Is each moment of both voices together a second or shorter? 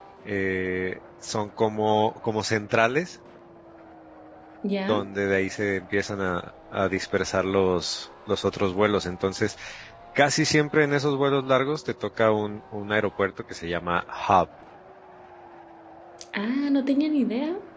Yes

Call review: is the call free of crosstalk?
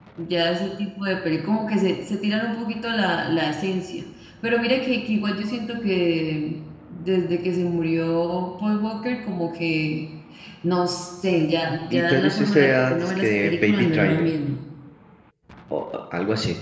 No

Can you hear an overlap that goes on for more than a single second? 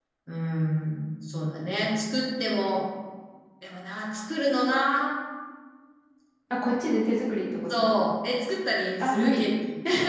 No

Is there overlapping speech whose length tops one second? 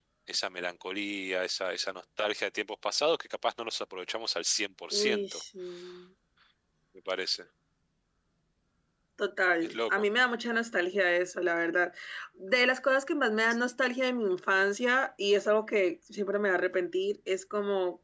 No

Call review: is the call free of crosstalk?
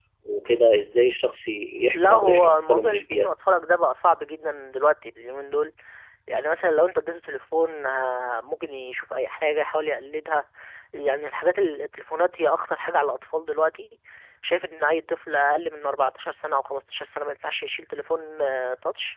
No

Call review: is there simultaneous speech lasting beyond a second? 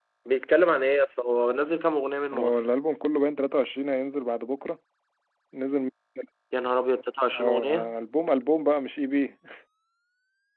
No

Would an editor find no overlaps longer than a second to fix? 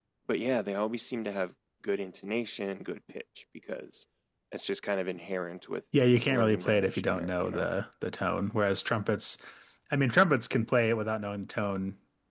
No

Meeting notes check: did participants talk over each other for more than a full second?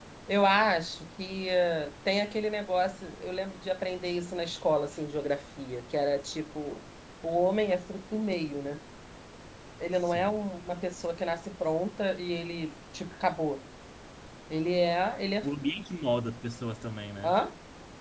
No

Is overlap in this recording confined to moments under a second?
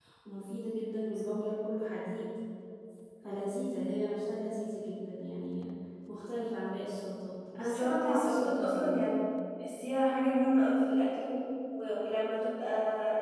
No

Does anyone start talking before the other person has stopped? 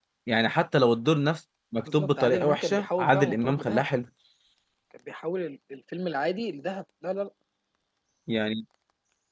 Yes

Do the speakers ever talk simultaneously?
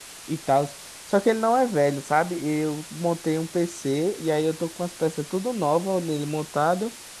No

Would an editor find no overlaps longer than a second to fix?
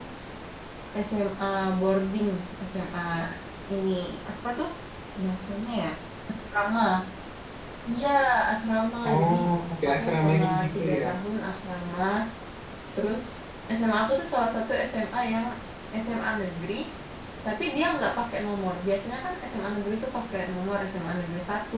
No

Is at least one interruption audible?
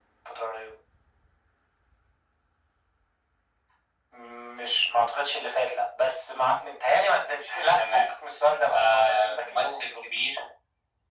Yes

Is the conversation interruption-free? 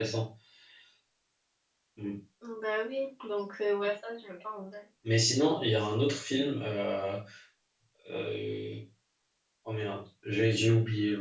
Yes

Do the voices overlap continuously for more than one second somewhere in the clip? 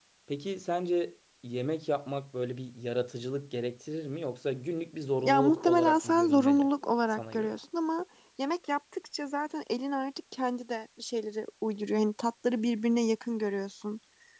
Yes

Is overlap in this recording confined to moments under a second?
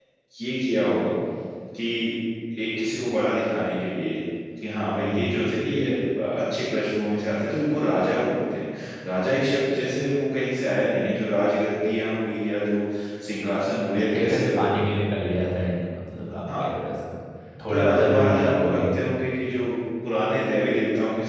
No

